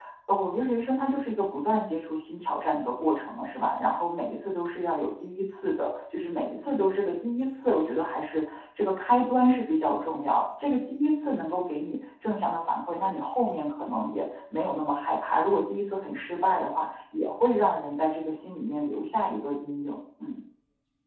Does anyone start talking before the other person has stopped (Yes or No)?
No